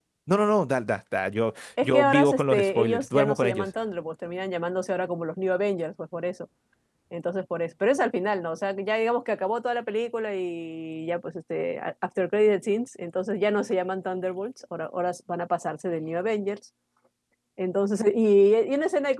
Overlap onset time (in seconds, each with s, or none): 1.8 s